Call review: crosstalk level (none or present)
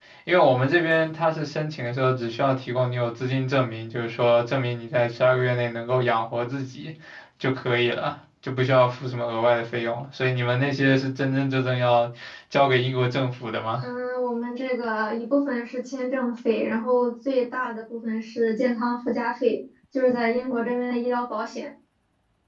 none